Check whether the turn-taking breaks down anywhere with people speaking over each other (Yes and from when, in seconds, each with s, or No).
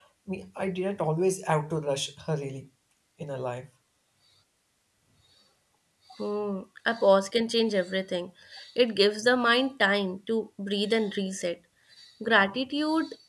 No